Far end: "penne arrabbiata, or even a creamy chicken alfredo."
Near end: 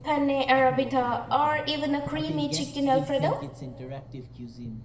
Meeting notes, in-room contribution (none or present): present